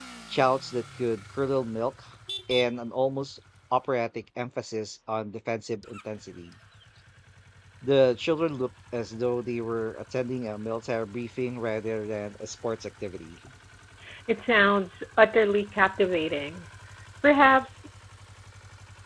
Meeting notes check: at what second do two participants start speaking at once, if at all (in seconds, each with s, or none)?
none